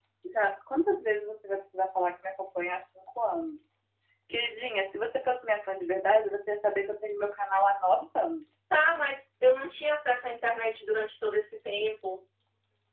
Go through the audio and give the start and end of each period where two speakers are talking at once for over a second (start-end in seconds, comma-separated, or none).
none